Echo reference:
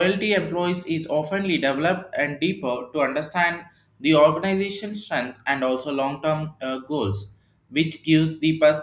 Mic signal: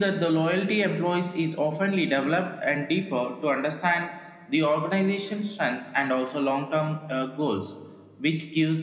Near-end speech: none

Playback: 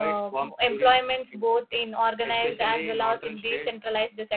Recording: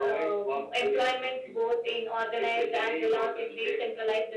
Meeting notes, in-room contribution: none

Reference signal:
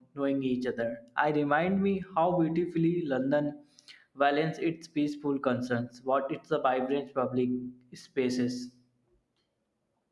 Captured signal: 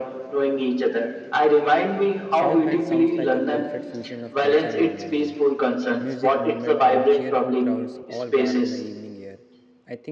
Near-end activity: present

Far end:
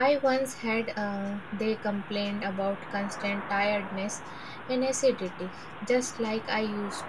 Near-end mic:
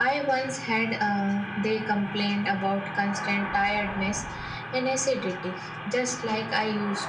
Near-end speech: none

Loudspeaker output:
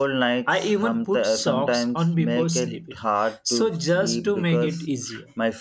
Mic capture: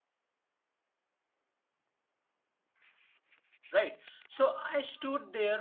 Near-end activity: present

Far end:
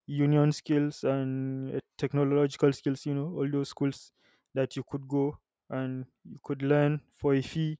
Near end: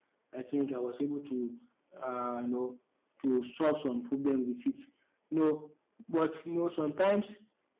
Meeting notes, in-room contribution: present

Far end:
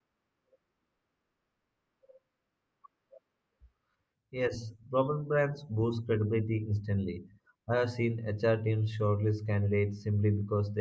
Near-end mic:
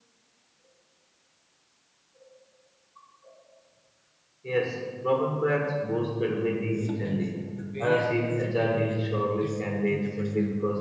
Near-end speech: present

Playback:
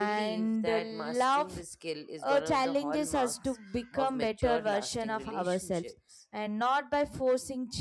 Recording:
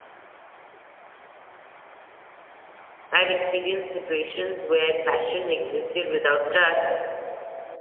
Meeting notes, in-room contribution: present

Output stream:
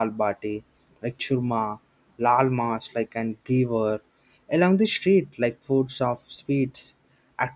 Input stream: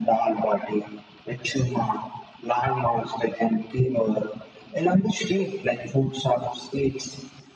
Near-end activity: none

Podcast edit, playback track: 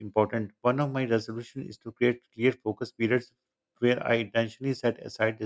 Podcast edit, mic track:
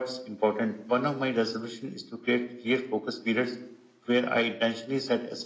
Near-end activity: none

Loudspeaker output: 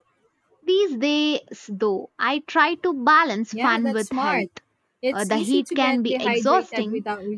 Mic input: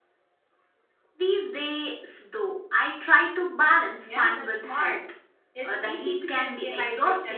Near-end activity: none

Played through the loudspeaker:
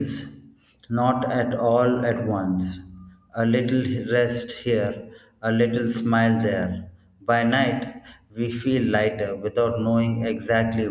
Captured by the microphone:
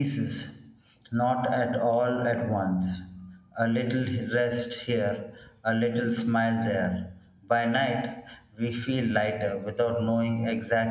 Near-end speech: none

